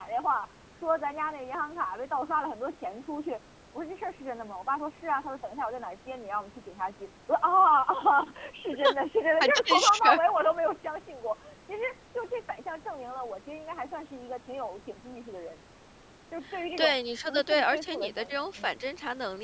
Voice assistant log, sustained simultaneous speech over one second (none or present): present